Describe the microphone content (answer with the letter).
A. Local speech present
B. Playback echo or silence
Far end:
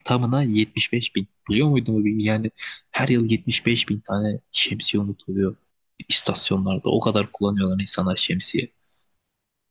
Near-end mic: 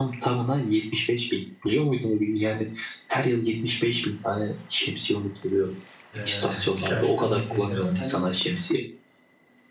A